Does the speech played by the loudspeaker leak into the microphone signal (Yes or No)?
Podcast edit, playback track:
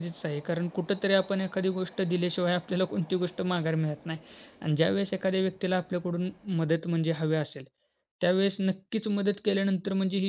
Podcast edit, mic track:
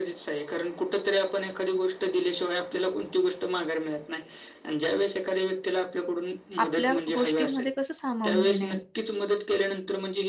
Yes